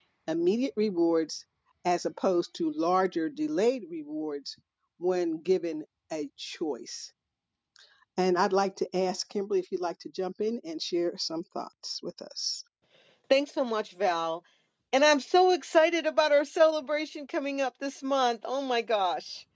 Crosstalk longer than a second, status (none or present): none